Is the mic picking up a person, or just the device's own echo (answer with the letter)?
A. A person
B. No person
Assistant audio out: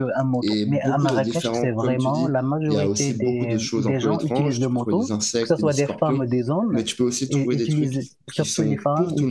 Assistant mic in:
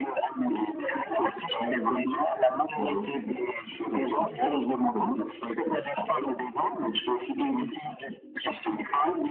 B